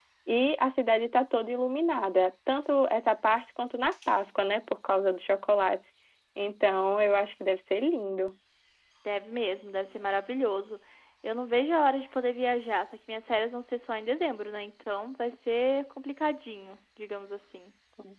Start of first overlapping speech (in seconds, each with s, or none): none